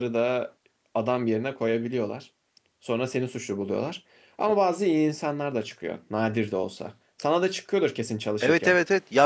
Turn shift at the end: Yes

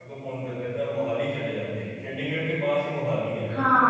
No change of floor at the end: Yes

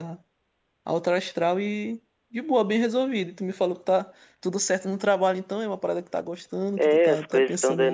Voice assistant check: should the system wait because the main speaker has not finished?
No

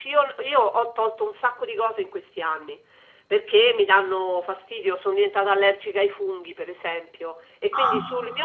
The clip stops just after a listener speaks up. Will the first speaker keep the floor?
Yes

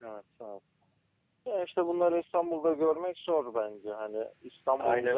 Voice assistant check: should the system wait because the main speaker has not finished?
Yes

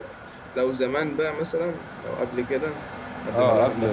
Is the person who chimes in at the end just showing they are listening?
No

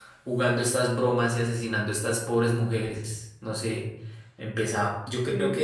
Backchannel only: Yes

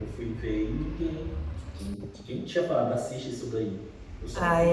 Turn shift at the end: Yes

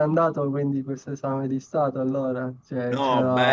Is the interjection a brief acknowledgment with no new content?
No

